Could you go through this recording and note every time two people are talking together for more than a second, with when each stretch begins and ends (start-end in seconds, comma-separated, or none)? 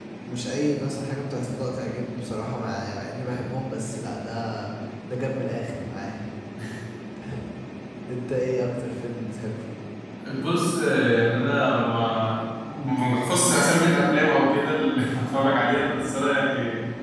none